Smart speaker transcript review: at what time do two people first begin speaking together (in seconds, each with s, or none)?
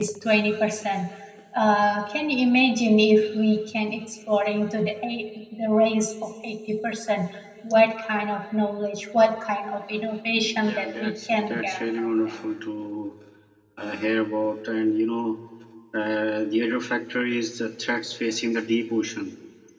10.5 s